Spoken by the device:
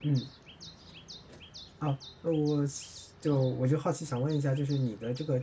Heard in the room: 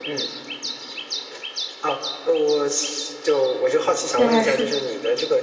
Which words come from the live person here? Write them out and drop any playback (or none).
原来是